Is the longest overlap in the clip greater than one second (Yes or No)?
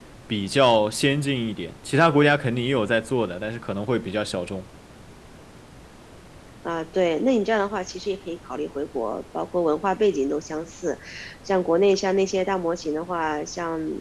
No